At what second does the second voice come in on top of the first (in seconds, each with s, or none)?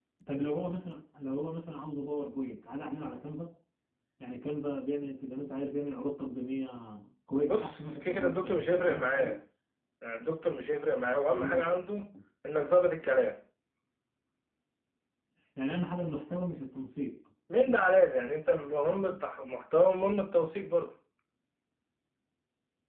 7.5 s